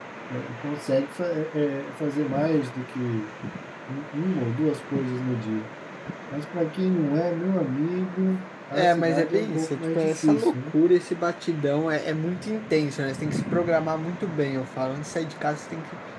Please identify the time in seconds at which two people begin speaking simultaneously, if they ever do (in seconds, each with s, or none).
8.7 s